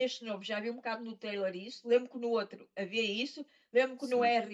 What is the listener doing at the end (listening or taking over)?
listening